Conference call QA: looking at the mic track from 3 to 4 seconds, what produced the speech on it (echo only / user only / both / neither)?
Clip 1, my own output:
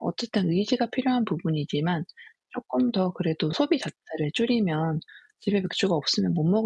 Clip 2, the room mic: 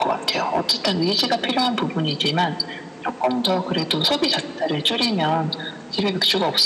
echo only